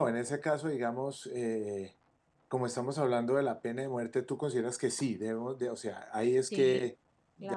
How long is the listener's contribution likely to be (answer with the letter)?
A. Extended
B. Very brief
A